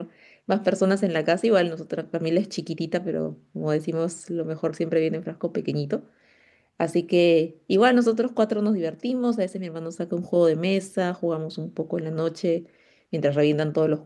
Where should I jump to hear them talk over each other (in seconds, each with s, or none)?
none